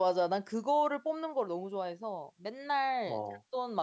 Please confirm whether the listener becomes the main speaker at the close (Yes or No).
No